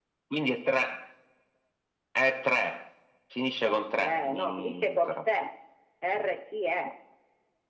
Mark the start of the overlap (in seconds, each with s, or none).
3.6 s